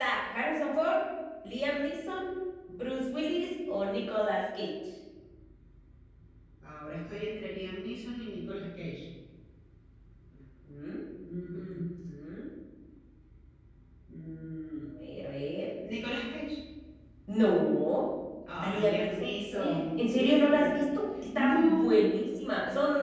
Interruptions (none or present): present